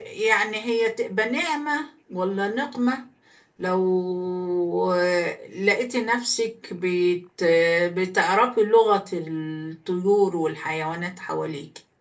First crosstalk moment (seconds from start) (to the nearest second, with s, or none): none